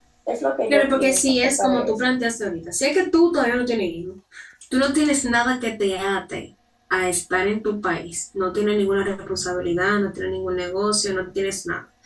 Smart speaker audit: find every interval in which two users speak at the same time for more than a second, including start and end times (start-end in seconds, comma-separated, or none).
0.7-1.9